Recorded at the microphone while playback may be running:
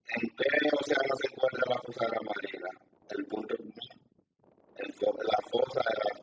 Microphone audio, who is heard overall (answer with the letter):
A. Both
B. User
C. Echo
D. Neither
C